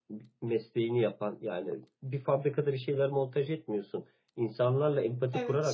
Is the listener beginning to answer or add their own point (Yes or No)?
No